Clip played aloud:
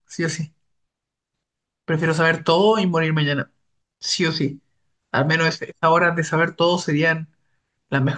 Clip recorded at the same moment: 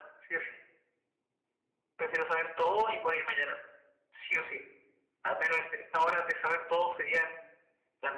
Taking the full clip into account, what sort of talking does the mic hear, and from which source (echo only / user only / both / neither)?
echo only